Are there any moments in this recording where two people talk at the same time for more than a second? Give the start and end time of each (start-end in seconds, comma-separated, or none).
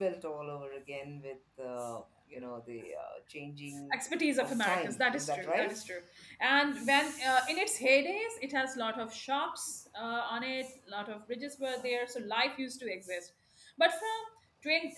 4.4-5.8